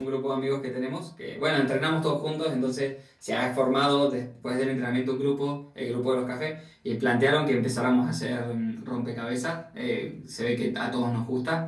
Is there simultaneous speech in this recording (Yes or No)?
No